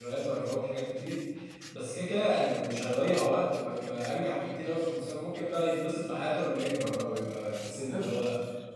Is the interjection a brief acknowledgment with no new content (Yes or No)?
Yes